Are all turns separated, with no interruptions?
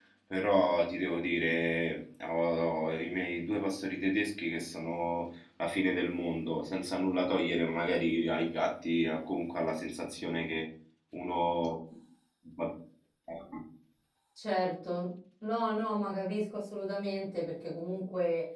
Yes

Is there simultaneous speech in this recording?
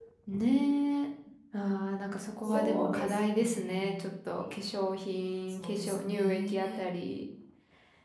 Yes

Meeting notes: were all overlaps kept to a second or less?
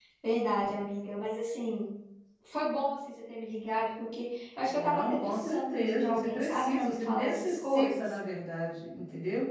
No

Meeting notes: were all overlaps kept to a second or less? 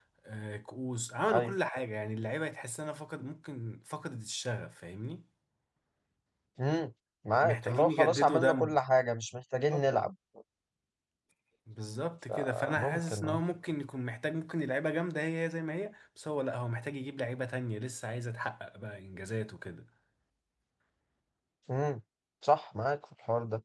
No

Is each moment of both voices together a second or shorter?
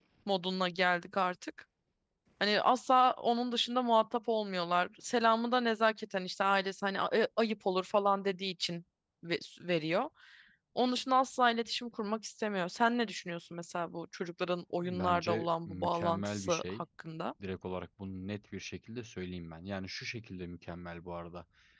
No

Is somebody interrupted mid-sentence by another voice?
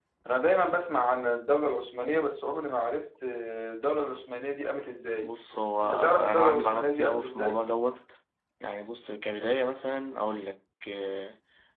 Yes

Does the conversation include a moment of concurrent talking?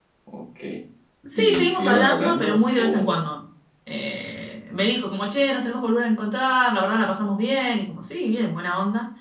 Yes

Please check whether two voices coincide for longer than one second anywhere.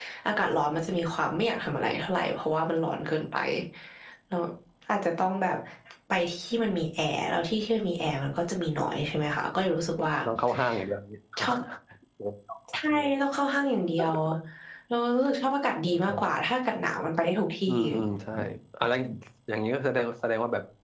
No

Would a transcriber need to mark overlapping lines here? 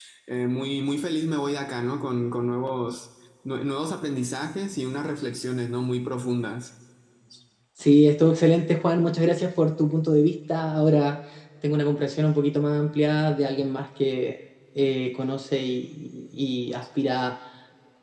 No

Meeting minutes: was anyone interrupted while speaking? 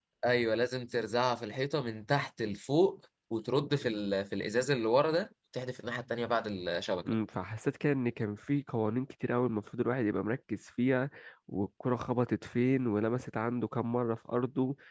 No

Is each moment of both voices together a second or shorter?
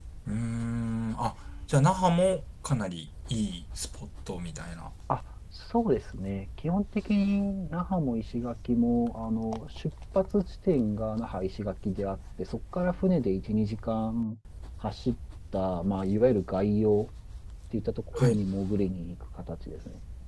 Yes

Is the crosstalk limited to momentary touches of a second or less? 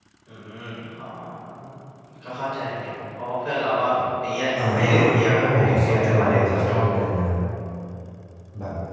No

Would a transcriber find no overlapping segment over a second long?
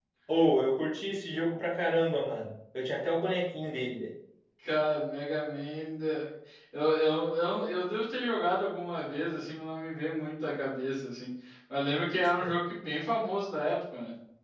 Yes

